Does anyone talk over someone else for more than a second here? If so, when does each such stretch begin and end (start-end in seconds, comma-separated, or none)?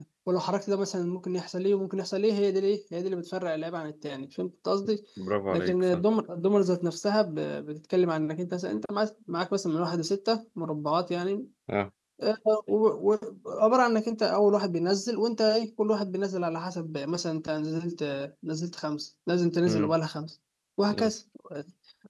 none